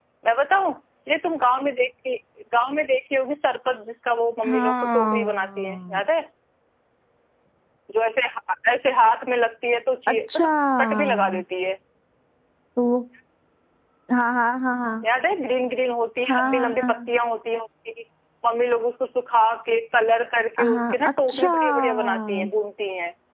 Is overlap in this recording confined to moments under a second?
No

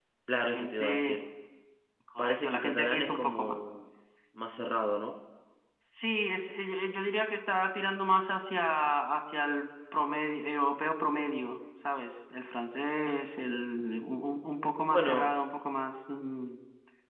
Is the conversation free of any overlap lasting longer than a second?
No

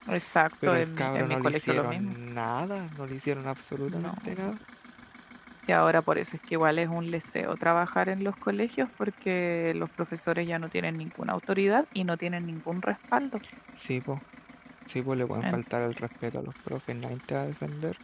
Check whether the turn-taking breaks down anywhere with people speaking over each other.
Yes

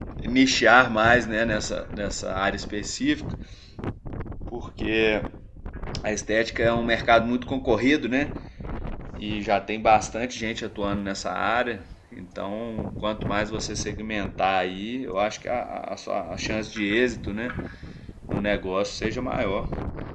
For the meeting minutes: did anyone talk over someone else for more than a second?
No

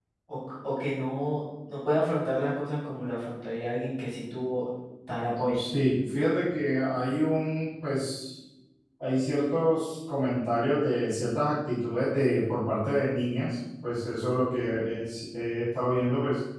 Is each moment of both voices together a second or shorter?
Yes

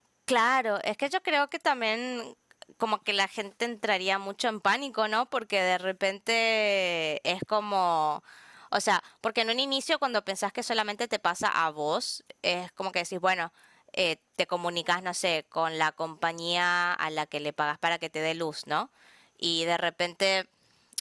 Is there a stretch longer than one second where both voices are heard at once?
No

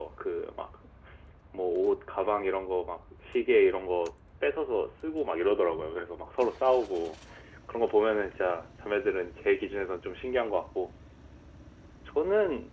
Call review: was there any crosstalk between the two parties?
No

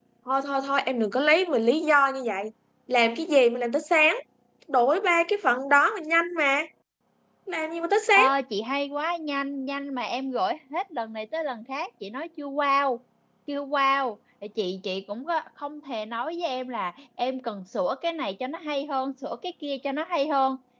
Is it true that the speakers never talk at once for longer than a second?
Yes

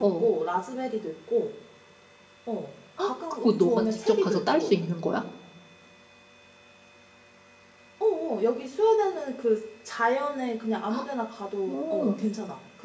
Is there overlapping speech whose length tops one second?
Yes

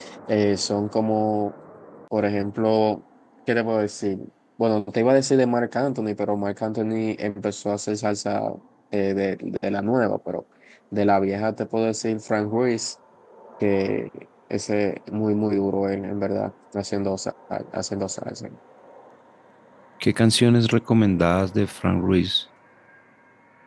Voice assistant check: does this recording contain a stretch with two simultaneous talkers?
No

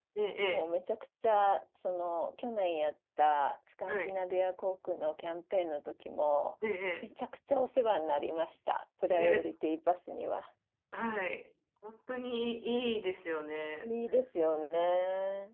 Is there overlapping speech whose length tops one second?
No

